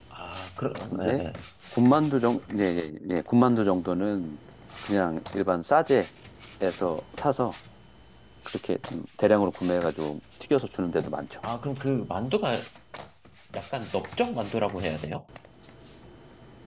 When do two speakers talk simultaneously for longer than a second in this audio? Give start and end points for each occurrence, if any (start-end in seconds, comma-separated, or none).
none